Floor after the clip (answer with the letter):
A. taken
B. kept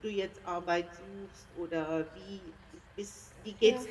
B